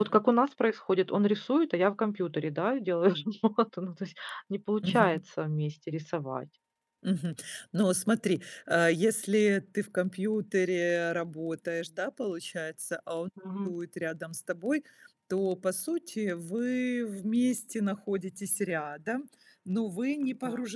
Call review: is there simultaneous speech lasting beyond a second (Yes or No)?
No